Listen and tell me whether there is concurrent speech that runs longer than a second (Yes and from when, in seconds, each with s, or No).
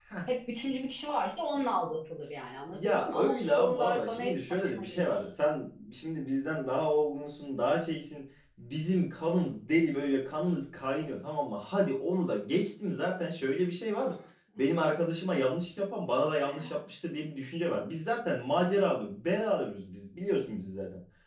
Yes, from 2.7 s